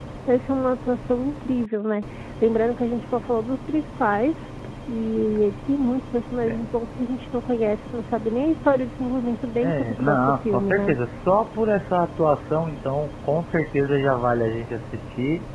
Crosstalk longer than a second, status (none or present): present